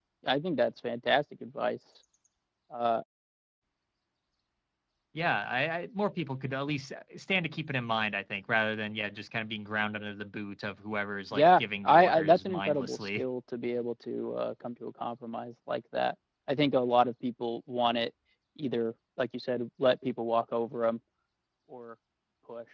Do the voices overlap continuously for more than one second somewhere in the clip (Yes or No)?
Yes